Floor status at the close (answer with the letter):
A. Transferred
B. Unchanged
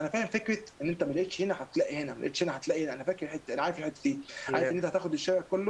B